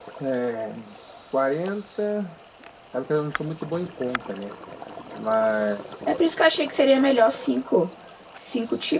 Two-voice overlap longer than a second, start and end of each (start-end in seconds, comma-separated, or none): none